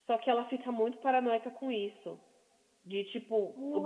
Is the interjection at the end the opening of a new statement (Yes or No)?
Yes